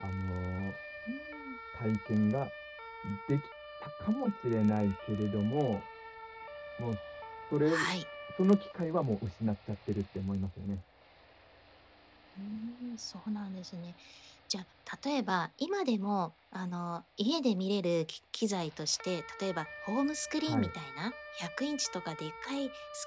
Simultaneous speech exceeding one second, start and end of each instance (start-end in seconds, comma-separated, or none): none